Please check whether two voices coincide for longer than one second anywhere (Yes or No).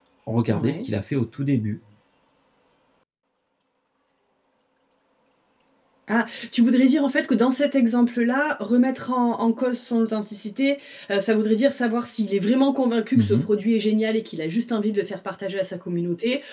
No